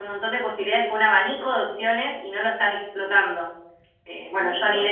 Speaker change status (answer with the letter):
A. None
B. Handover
A